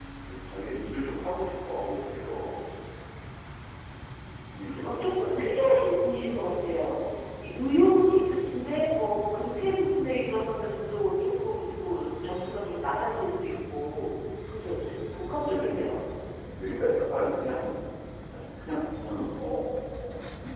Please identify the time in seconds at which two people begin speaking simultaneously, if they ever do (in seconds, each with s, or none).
4.5 s